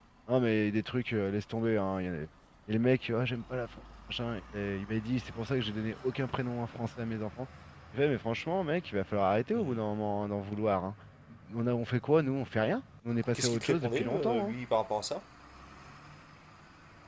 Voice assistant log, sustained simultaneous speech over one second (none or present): present